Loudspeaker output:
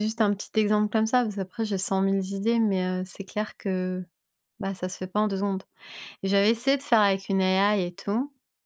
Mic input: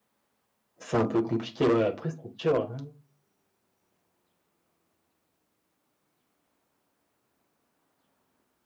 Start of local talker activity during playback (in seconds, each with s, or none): 0.8 s